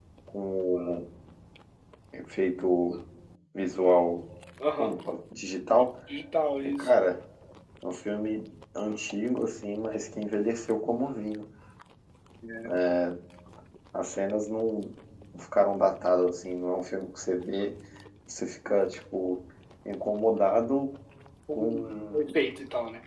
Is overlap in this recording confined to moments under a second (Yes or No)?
Yes